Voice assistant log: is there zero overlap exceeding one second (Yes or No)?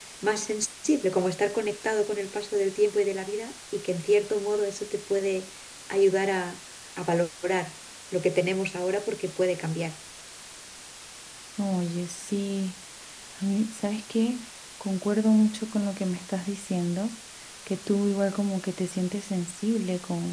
Yes